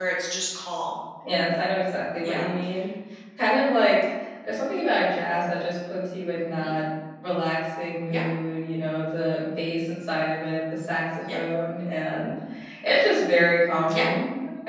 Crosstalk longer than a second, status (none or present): none